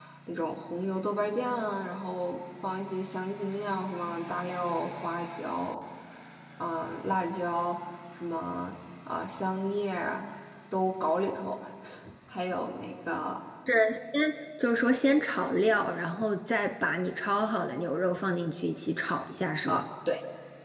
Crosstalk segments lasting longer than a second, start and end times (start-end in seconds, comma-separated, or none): none